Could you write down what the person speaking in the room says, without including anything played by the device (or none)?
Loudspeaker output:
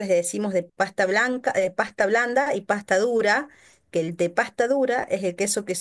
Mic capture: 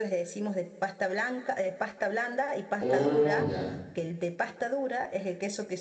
Oh, ya.